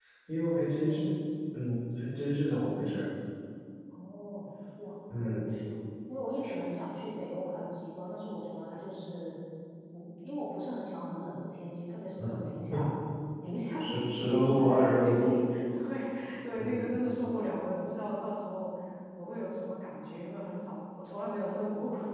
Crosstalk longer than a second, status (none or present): present